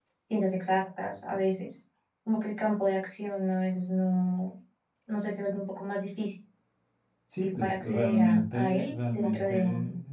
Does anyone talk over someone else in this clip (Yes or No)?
Yes